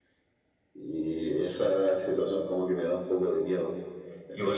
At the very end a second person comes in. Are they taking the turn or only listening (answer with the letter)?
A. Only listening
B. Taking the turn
B